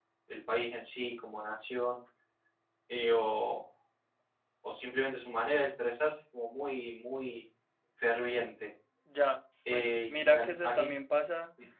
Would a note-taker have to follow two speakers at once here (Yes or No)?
Yes